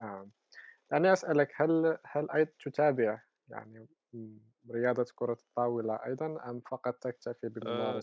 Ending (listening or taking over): taking over